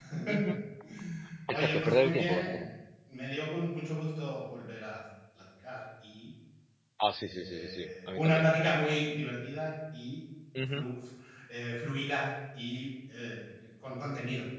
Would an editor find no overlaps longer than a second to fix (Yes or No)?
No